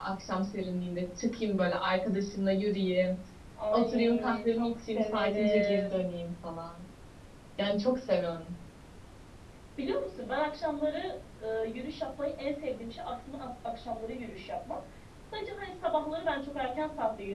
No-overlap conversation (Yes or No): No